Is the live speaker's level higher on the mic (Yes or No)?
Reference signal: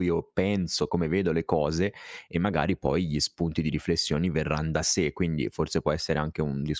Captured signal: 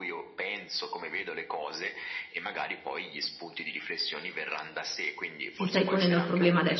Yes